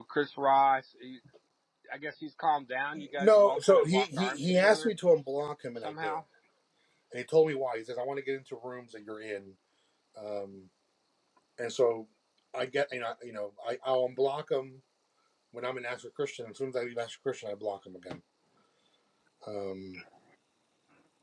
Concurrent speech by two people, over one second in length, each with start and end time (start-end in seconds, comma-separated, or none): 3.0-4.9